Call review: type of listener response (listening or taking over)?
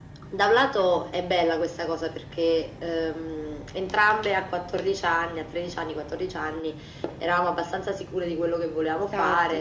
listening